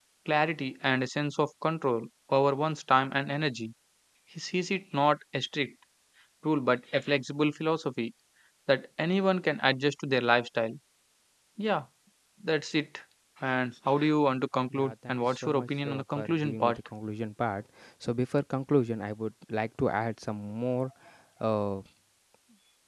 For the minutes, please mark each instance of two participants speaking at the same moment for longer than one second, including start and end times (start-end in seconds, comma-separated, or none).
14.7-16.8